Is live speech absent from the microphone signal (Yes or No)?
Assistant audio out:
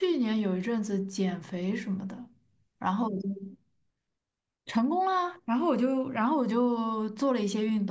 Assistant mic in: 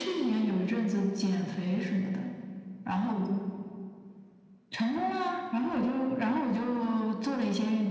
Yes